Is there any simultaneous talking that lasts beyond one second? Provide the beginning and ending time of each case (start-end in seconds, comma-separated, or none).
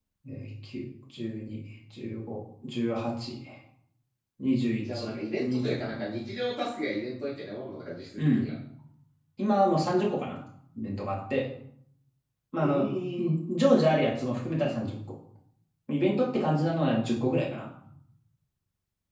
4.8-6.2